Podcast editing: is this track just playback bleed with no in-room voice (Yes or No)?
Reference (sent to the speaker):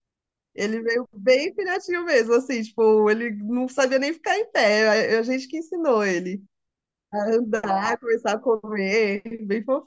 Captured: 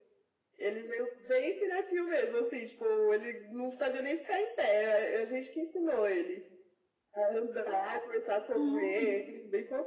No